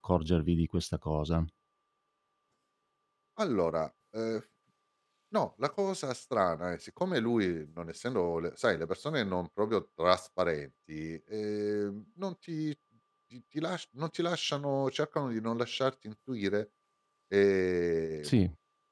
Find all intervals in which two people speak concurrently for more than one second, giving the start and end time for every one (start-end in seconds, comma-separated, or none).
none